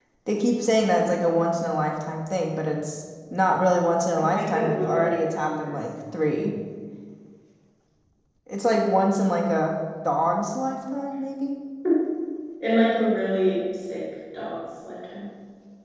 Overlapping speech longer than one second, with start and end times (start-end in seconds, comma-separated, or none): 4.2-5.8